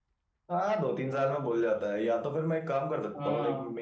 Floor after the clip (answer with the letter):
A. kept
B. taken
A